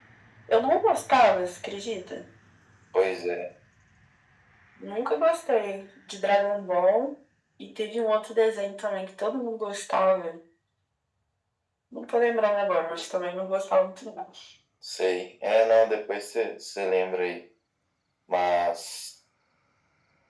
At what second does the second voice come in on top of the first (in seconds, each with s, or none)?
none